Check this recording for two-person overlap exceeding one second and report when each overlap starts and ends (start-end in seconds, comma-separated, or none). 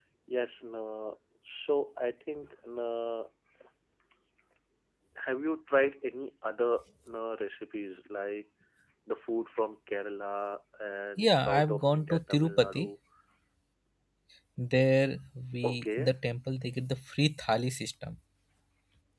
11.2-12.9